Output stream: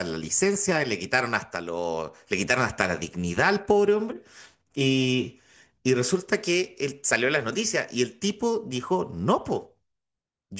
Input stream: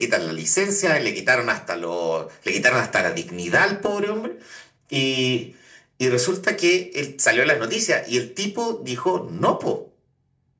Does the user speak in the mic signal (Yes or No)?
No